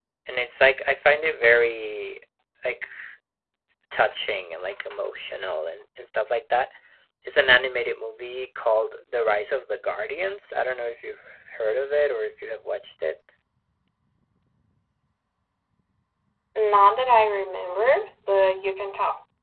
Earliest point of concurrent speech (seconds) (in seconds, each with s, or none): none